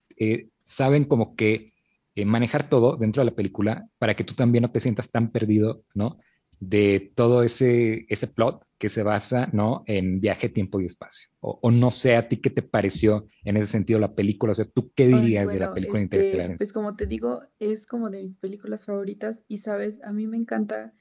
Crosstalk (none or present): present